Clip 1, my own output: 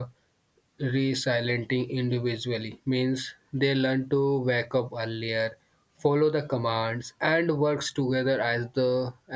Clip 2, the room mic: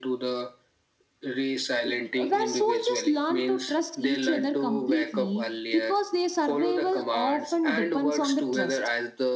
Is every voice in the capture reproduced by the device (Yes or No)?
No